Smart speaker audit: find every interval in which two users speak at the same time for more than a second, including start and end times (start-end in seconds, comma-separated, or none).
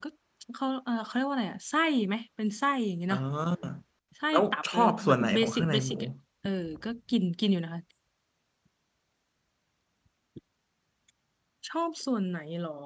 4.3-6.0